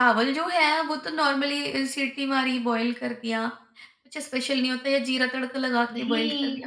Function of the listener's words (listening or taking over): taking over